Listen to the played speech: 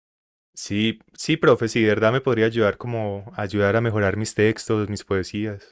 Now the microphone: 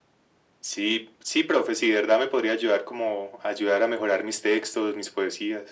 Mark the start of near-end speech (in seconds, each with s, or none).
none